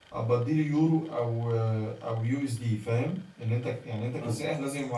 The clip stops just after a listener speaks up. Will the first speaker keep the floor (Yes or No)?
Yes